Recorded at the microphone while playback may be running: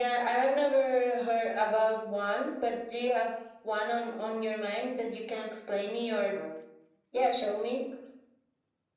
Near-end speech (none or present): none